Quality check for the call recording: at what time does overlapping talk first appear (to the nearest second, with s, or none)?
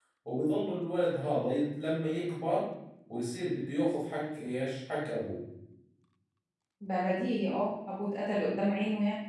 none